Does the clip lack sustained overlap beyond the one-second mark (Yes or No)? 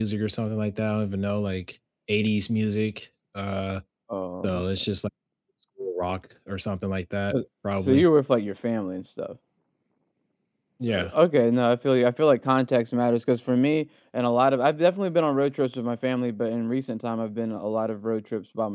Yes